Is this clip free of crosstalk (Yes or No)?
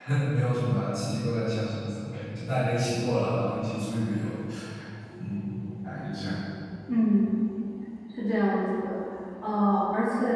Yes